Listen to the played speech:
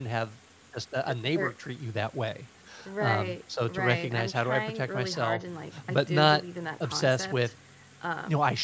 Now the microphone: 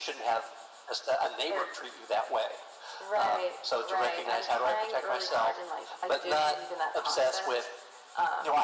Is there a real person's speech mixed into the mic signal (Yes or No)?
No